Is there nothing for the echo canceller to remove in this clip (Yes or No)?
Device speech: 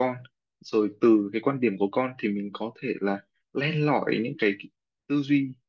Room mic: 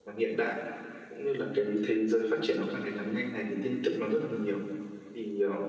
Yes